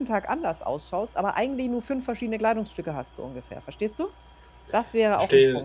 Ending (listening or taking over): taking over